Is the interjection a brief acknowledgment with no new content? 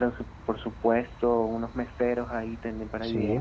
Yes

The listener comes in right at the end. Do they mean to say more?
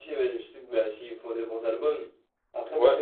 No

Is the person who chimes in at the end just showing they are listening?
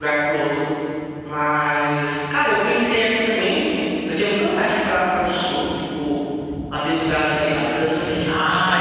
No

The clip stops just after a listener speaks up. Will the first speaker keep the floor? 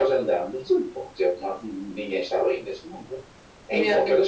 Yes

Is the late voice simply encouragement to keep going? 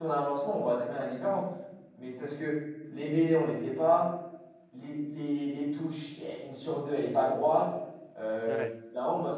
Yes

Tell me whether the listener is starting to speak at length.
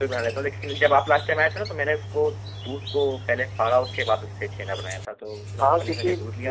Yes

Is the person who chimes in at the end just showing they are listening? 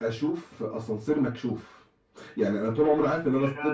Yes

